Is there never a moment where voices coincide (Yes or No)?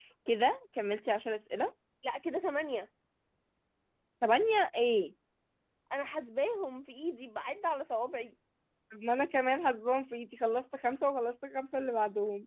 Yes